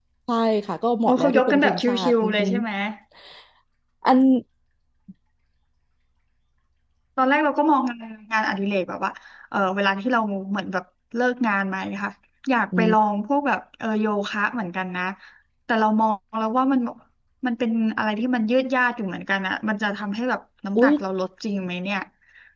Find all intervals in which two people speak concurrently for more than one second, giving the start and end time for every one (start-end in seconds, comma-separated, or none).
1.1-2.5